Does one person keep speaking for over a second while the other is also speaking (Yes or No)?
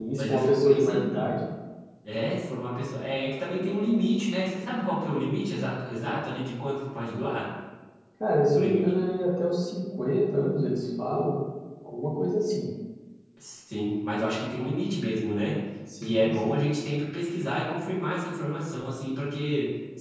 Yes